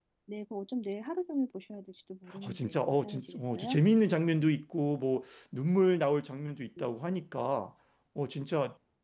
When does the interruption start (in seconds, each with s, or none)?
2.3 s